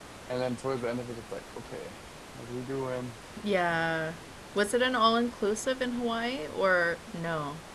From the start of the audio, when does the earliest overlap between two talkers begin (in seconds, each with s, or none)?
none